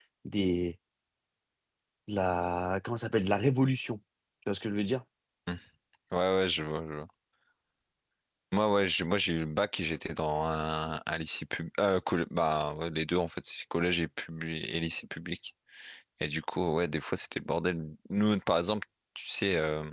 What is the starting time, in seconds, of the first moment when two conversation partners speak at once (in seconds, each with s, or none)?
none